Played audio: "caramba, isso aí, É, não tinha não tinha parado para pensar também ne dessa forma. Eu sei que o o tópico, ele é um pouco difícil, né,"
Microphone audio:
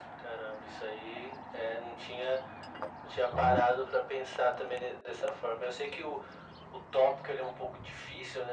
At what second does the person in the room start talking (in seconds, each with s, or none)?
3.1 s